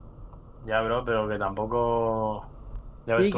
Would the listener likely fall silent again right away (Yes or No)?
No